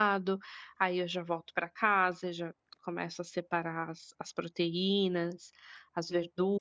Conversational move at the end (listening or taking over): taking over